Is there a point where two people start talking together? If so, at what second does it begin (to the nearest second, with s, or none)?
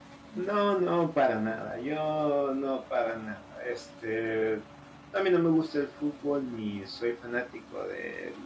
none